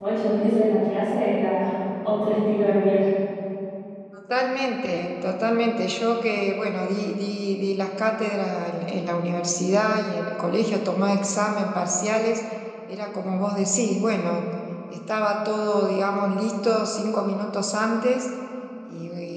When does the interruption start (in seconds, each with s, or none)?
none